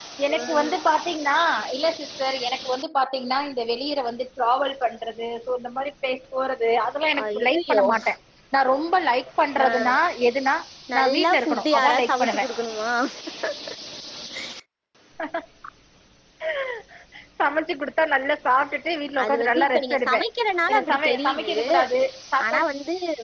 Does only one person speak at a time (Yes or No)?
No